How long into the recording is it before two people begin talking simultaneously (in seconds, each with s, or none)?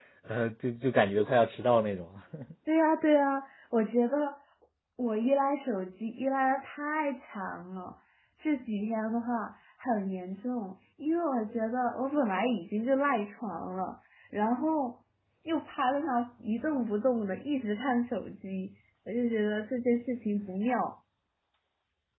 none